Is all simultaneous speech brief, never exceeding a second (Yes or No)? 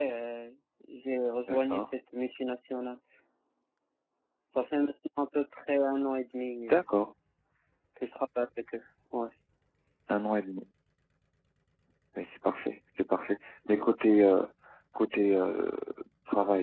Yes